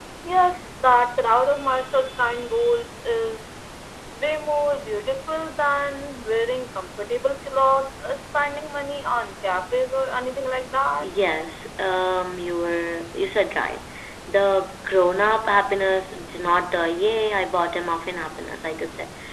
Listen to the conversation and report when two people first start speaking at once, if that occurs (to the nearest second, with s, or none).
none